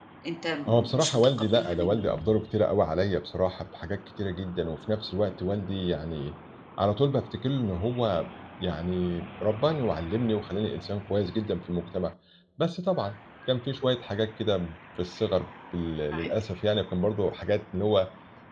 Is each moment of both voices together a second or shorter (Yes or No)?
No